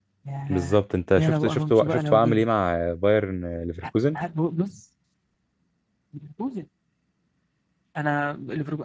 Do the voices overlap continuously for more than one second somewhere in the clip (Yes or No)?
Yes